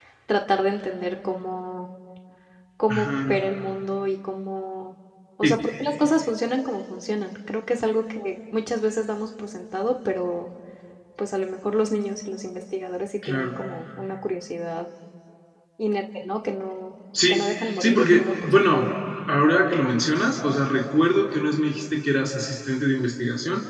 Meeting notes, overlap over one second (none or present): present